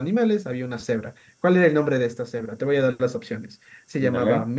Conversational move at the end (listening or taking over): listening